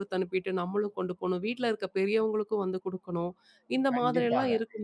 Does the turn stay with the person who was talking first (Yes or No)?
No